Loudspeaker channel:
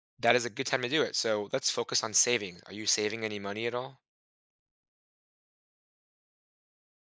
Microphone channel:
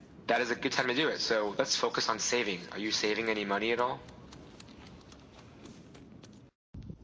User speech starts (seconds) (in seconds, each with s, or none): none